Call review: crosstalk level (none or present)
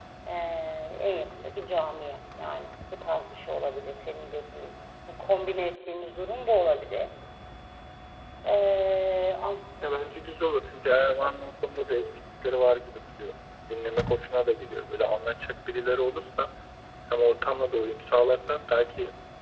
none